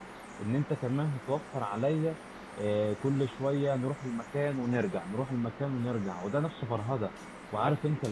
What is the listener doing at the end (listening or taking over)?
listening